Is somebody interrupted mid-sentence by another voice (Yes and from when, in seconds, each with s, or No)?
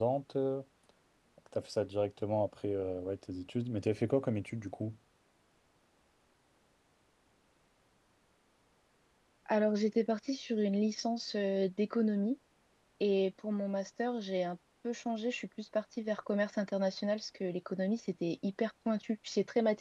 No